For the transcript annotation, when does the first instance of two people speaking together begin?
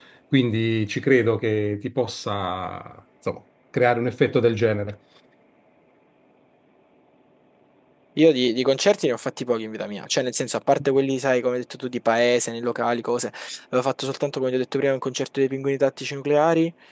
none

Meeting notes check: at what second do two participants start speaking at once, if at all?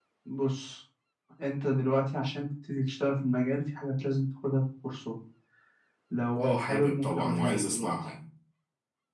6.4 s

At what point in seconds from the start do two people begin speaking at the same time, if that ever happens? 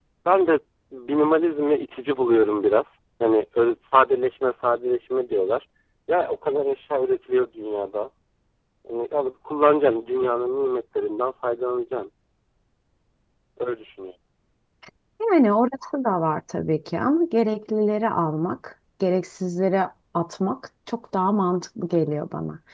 none

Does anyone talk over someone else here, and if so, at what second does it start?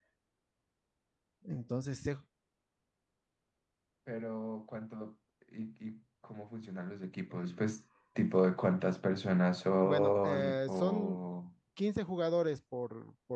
9.8 s

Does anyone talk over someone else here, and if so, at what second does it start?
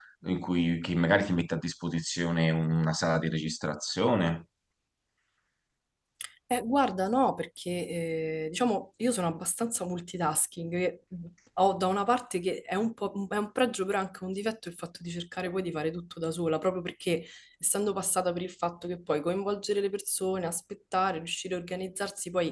none

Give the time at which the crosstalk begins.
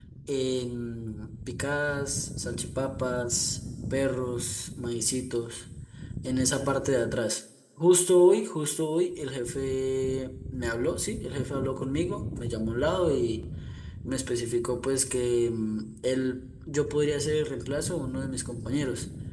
none

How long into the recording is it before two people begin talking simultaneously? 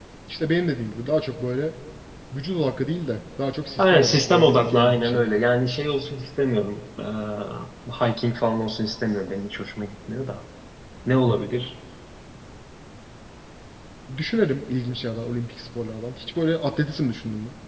3.8 s

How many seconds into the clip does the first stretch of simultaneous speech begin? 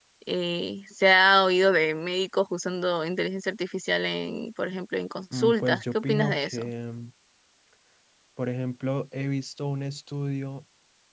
5.3 s

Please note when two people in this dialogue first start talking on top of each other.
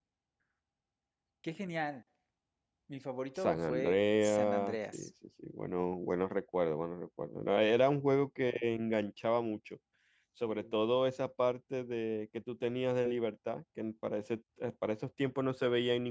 3.4 s

